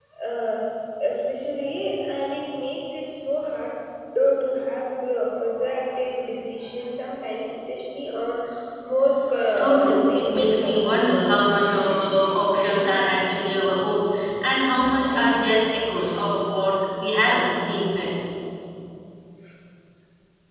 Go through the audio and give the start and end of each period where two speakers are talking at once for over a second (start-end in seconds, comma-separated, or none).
9.5-11.2